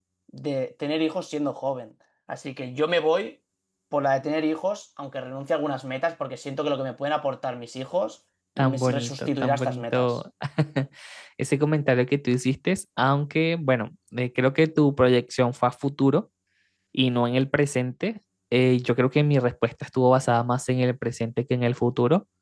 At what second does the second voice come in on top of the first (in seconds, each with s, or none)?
8.6 s